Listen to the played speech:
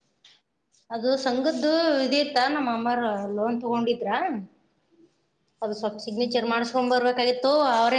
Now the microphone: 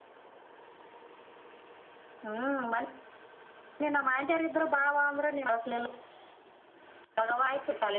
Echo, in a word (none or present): none